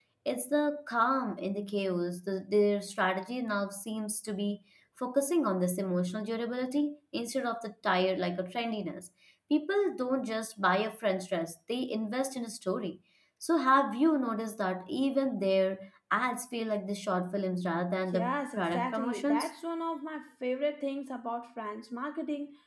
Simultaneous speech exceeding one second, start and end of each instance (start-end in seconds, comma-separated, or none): 18.1-19.5